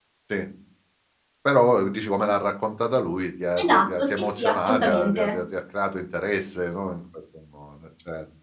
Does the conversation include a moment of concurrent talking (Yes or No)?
Yes